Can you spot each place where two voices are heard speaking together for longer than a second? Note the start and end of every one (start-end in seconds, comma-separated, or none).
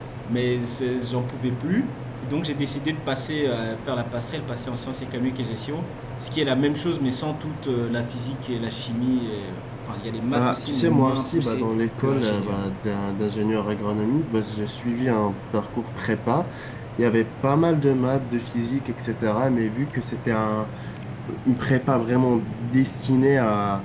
10.3-12.6